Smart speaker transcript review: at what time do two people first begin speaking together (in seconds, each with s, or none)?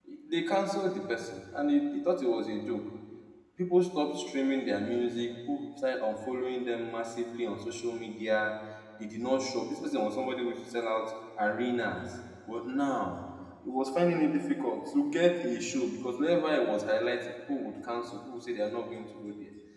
none